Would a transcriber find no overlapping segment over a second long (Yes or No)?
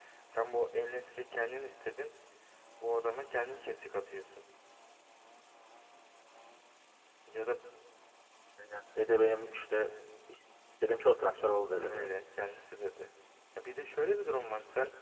Yes